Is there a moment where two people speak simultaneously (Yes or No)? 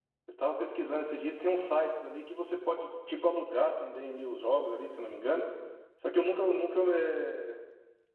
No